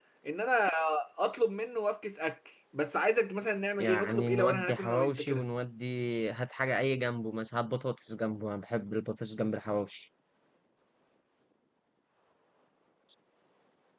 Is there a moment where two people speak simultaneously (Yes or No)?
Yes